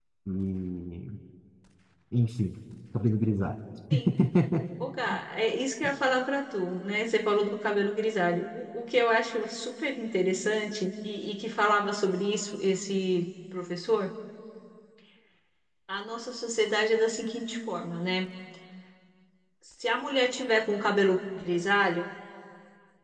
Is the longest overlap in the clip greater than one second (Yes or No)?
No